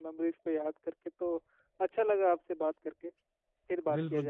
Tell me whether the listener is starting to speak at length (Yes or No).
Yes